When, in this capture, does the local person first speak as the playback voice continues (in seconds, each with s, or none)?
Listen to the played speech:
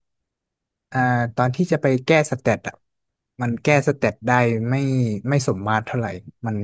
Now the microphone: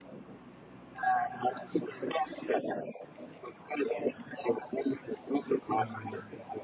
5.7 s